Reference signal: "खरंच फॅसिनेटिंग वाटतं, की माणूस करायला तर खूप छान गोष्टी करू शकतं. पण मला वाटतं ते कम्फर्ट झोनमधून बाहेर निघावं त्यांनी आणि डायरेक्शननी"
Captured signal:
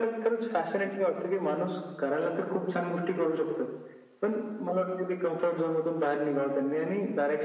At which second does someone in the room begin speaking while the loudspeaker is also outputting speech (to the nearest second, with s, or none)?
none